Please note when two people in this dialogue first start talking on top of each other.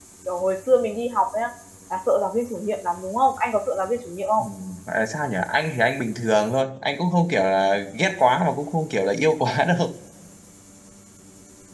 none

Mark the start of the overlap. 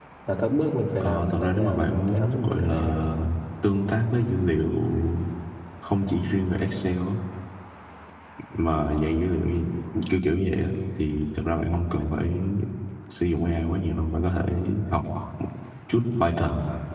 1.0 s

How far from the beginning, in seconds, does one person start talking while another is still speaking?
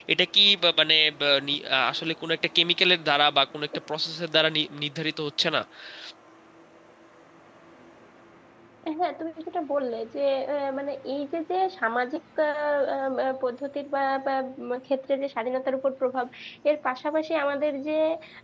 none

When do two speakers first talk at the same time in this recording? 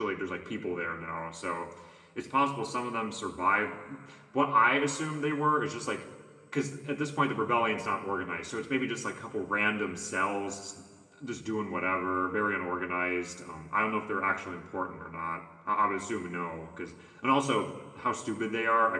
none

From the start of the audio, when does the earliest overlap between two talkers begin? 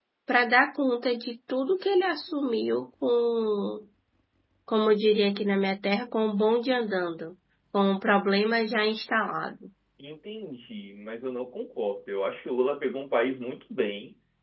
none

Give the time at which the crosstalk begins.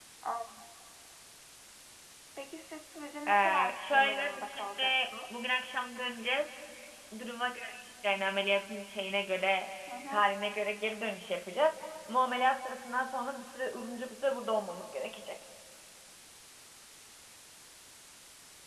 3.3 s

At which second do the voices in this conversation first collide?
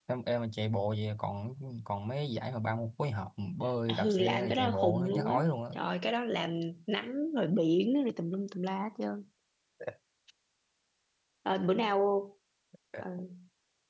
3.9 s

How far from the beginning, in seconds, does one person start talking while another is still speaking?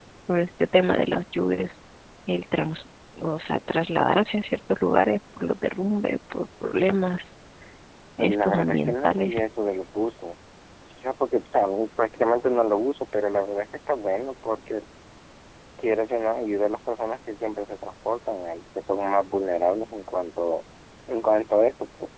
8.2 s

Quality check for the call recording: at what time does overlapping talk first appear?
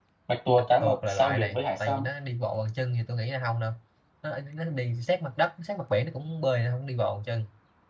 0.6 s

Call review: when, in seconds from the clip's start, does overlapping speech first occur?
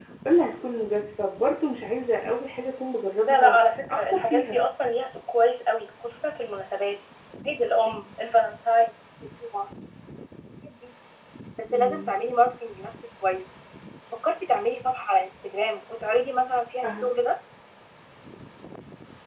3.3 s

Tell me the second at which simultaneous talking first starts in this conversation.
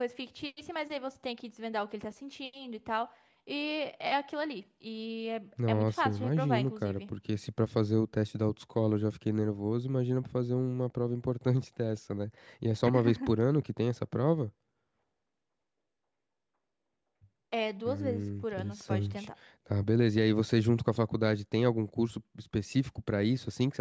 5.7 s

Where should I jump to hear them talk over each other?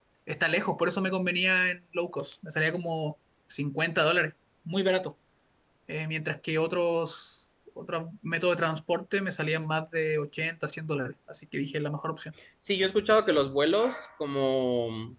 none

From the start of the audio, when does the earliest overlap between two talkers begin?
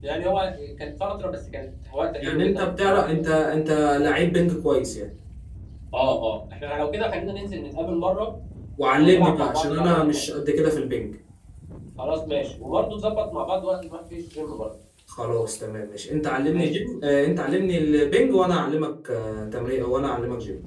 2.2 s

